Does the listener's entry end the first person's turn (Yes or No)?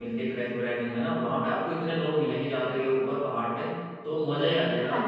No